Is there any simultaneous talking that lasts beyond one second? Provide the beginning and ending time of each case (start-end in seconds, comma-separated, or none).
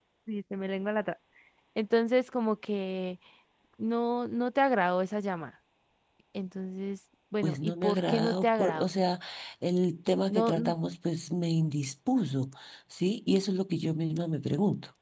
7.4-8.9